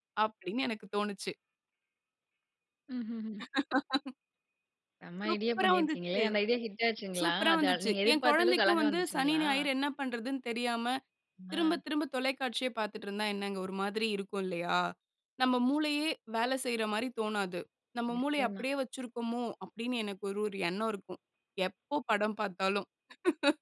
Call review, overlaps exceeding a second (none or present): present